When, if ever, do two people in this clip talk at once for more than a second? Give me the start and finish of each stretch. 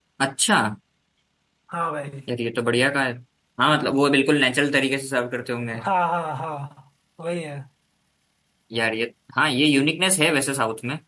none

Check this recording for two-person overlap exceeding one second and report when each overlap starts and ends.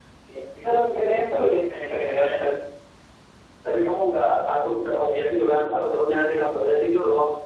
none

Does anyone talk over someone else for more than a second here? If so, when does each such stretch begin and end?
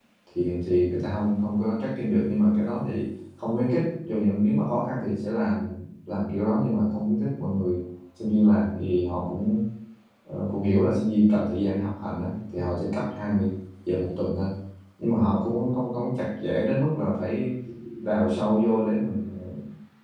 none

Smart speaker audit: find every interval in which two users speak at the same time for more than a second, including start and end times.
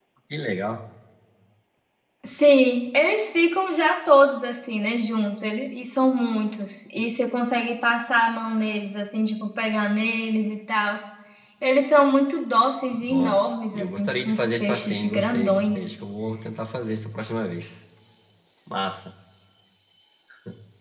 13.1-15.9

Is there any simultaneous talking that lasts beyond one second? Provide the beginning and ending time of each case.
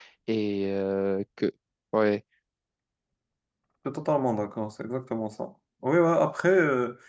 none

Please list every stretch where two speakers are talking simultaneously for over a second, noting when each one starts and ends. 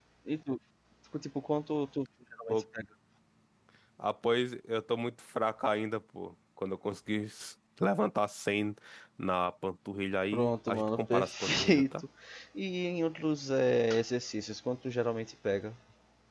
10.3-12.0

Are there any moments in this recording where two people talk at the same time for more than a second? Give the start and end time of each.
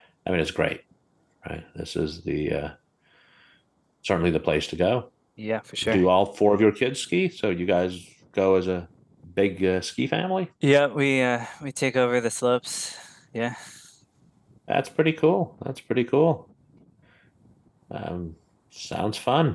none

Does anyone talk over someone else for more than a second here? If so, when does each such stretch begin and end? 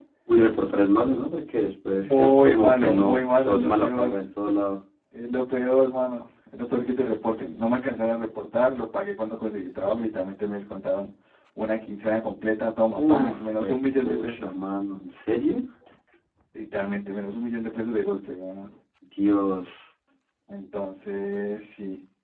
2.0-4.2, 13.0-14.5

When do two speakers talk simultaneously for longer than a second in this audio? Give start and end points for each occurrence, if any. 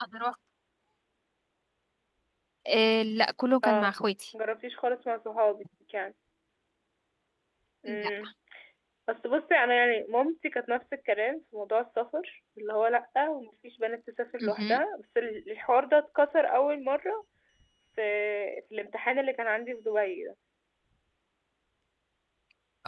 none

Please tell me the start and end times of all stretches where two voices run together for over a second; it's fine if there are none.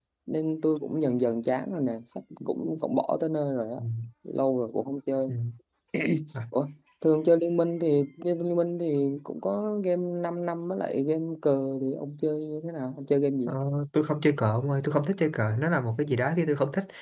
none

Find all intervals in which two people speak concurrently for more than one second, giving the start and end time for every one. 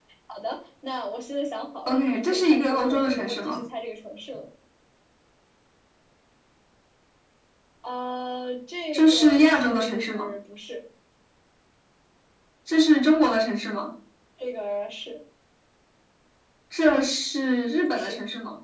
1.9-3.6, 8.9-10.3

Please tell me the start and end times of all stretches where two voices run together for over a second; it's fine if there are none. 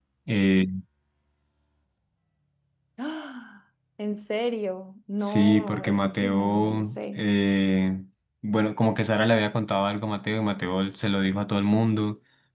5.2-7.3

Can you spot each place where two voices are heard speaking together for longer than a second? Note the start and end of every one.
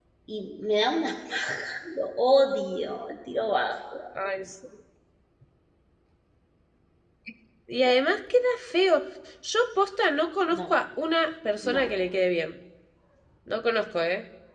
none

